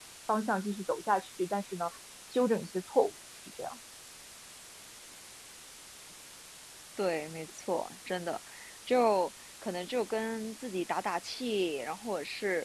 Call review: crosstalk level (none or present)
none